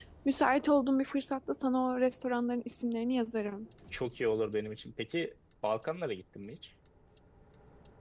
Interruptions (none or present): none